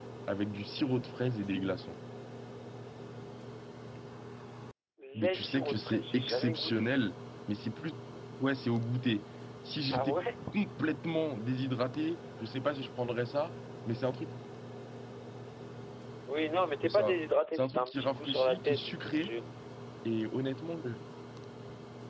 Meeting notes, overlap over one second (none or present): present